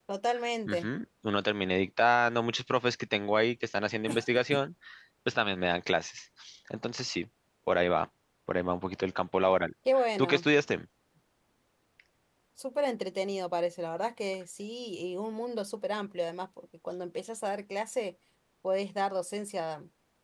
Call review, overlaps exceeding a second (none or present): none